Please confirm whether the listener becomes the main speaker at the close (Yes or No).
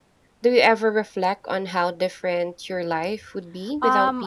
Yes